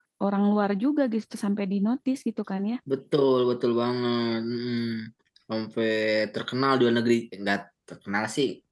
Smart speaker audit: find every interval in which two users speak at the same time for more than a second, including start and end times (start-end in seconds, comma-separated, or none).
none